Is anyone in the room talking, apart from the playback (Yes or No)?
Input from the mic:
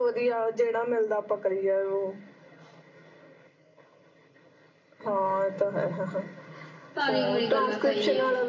Yes